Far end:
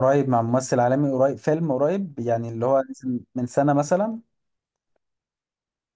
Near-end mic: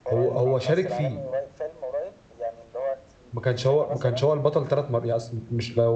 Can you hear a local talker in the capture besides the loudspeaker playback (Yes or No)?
Yes